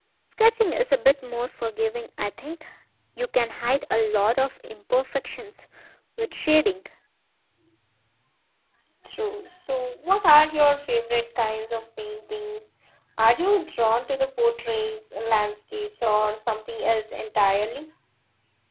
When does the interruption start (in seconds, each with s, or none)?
none